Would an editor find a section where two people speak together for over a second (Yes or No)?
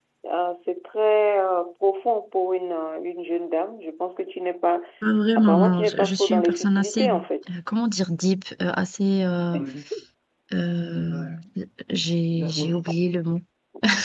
Yes